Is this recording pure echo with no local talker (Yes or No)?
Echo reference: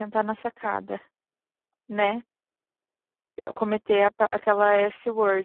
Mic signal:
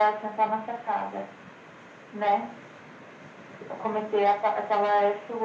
Yes